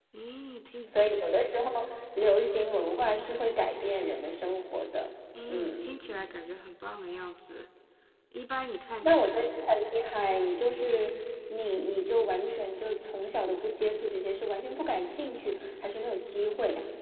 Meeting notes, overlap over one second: none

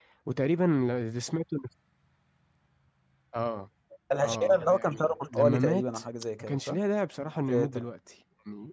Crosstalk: present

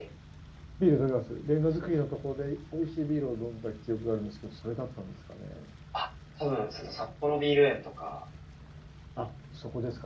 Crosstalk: none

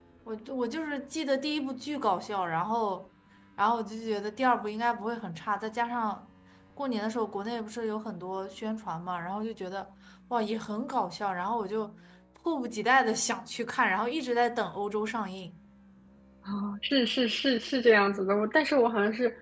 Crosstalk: none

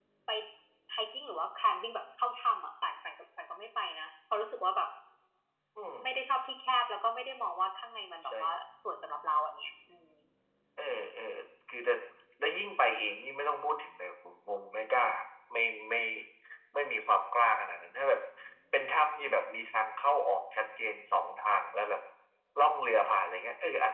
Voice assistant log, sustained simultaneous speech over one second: none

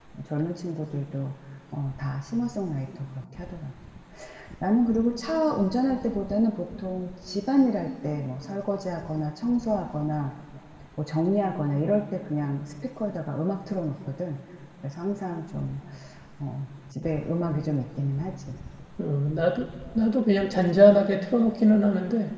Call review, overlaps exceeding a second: none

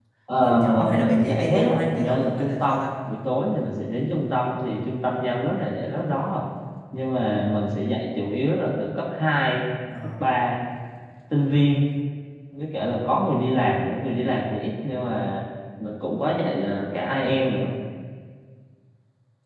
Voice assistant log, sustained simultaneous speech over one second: present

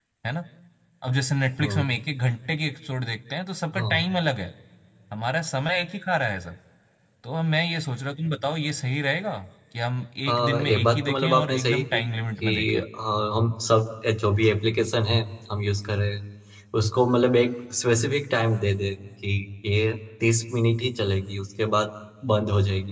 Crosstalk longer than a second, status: present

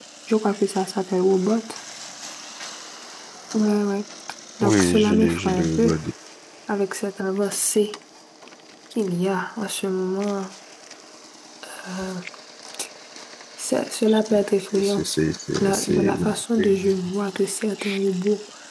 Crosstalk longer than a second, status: present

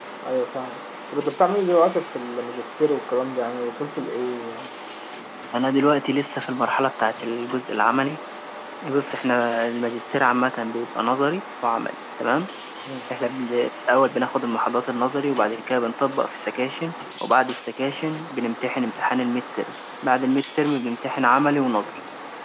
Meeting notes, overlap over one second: none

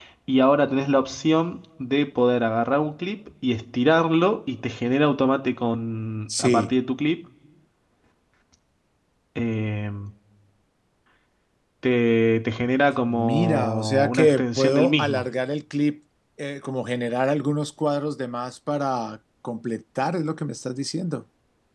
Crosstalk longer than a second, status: present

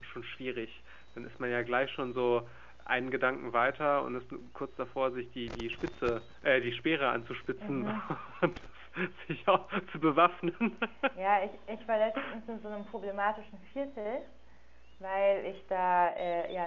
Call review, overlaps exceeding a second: none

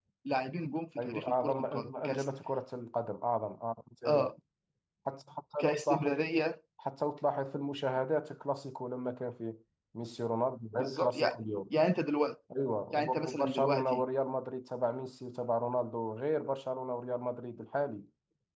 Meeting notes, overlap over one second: present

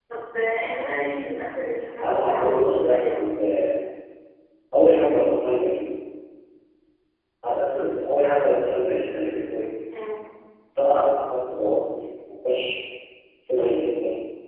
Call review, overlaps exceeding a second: present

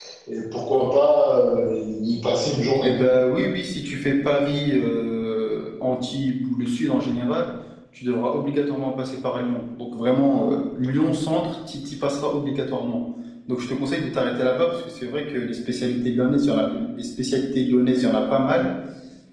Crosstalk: none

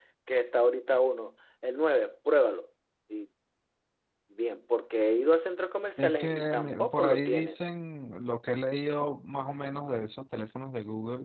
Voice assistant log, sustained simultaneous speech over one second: present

